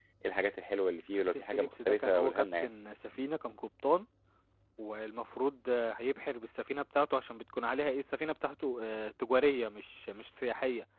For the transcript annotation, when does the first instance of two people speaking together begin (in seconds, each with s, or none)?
1.3 s